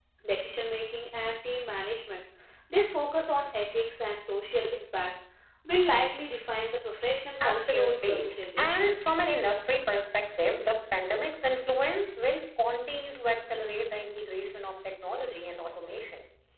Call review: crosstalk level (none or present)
present